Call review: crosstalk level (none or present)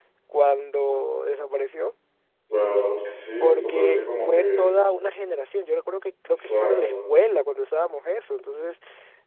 present